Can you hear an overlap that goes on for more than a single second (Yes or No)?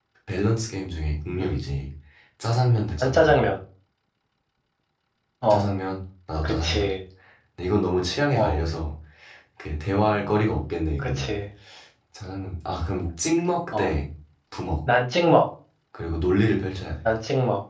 No